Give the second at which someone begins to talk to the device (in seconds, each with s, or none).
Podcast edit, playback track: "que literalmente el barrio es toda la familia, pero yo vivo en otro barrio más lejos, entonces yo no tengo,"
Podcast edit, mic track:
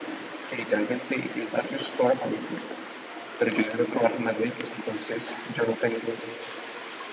none